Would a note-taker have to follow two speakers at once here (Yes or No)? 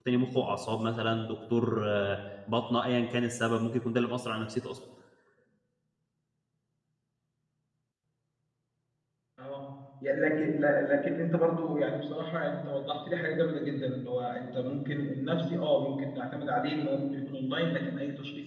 No